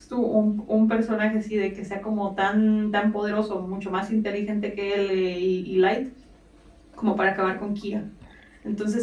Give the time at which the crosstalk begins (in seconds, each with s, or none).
none